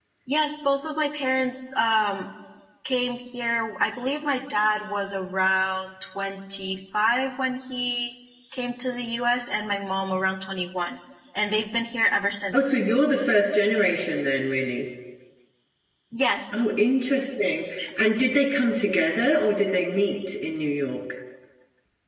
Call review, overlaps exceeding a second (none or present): none